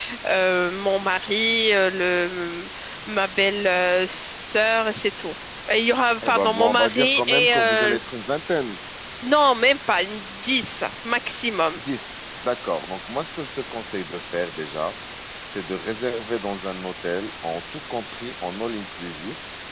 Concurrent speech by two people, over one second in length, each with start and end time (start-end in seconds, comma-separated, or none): 6.2-8.0